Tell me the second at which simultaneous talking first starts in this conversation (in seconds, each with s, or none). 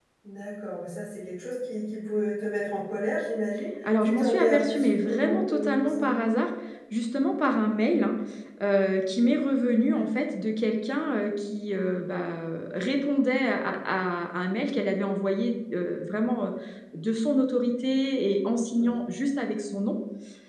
3.8 s